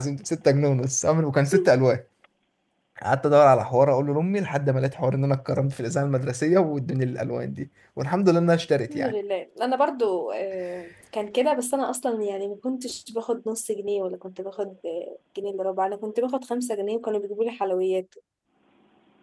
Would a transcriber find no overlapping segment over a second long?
Yes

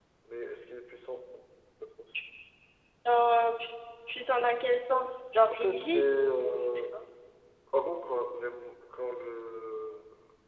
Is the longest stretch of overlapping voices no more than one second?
No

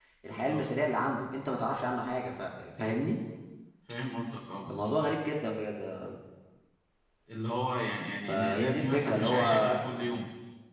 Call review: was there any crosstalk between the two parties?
Yes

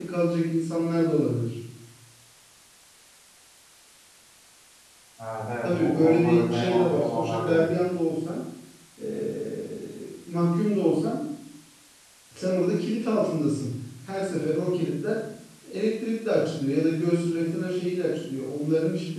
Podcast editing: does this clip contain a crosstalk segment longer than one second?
Yes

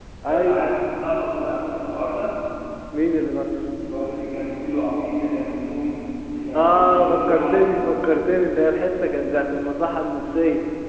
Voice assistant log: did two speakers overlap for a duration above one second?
Yes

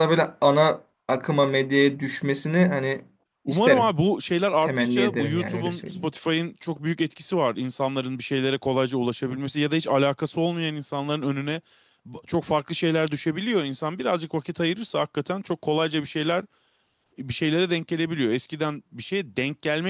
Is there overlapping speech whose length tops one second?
Yes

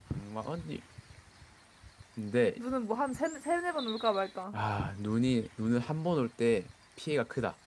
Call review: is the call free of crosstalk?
Yes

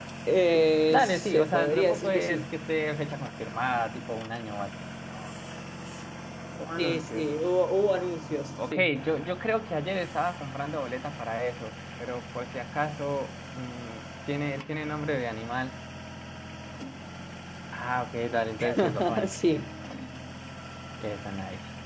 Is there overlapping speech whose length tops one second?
Yes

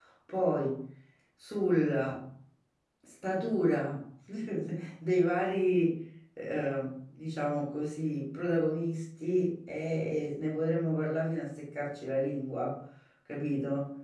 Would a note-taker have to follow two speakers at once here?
No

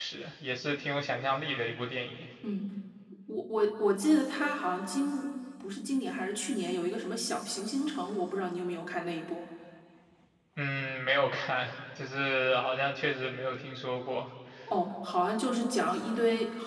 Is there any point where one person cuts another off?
No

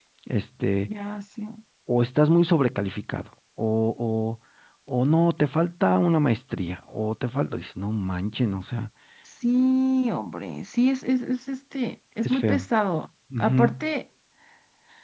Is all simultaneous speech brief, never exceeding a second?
Yes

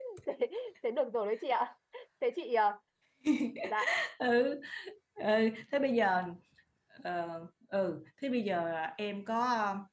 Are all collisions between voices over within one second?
Yes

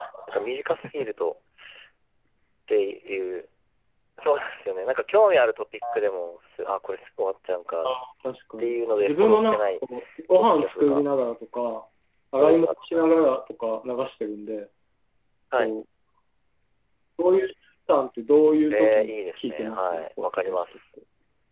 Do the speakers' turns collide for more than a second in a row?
Yes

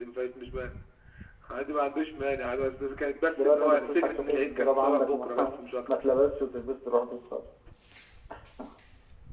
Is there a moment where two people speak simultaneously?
Yes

